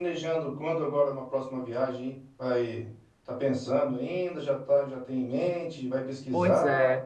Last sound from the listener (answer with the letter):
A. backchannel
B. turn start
B